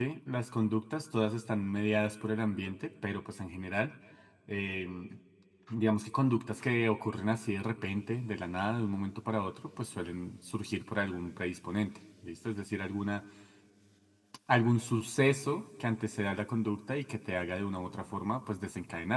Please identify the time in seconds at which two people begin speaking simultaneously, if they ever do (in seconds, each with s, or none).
none